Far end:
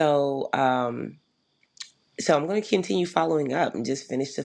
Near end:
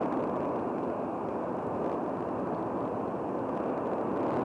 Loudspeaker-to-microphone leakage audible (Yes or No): No